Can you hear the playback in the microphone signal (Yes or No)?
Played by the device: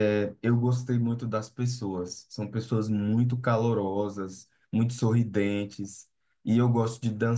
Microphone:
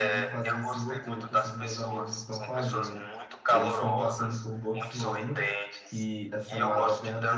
Yes